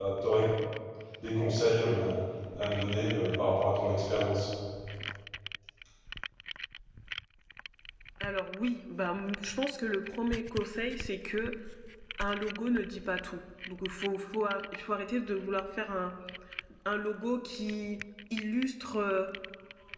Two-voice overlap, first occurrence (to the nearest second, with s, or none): none